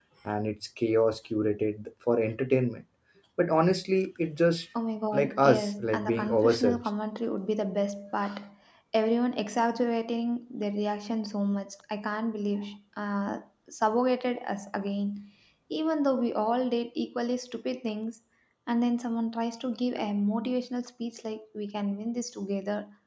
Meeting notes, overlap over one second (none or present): present